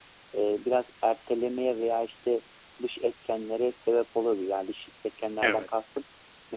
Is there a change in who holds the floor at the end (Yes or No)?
No